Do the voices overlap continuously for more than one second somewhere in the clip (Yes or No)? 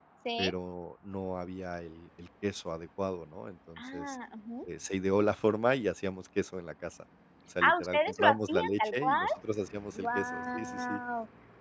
Yes